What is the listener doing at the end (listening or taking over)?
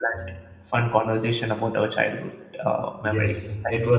taking over